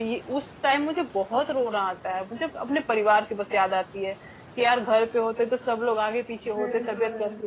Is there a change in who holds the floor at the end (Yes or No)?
No